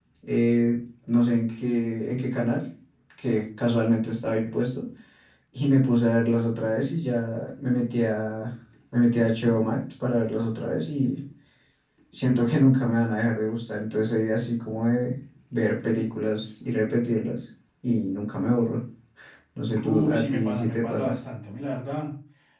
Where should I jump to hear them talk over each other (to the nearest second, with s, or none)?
20 s